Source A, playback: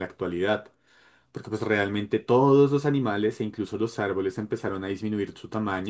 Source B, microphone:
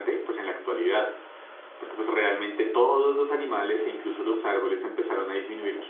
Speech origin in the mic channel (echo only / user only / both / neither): echo only